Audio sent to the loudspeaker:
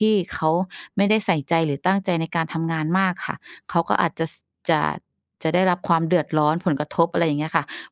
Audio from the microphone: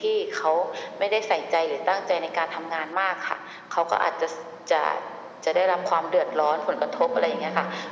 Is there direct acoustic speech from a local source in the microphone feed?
Yes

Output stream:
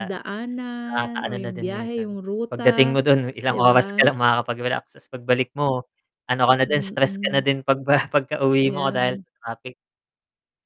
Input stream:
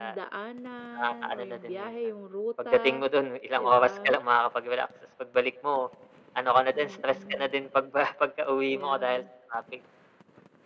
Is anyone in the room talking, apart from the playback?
No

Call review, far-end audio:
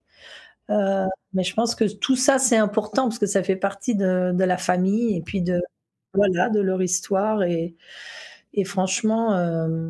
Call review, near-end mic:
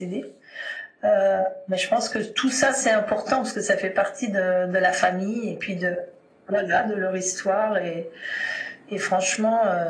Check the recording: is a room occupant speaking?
No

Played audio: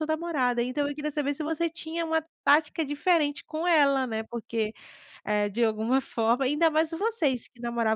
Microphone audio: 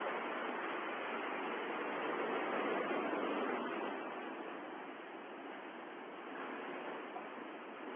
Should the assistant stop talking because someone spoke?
No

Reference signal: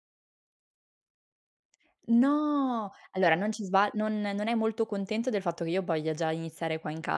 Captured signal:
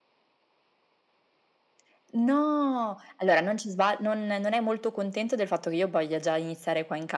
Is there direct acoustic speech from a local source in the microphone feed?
No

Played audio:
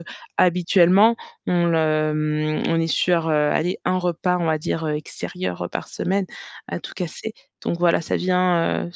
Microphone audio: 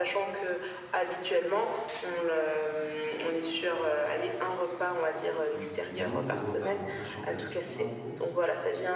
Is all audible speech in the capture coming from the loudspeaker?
No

